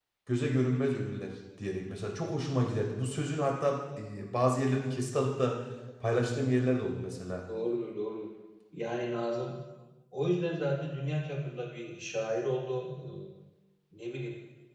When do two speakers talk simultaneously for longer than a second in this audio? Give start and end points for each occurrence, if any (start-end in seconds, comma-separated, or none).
none